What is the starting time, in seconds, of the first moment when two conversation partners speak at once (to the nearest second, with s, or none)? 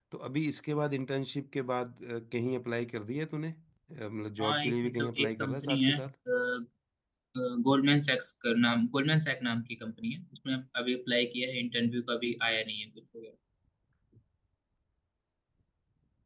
4 s